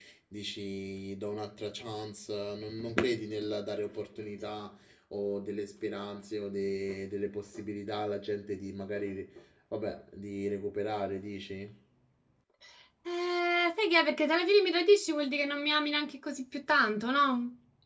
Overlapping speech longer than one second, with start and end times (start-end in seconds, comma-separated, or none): none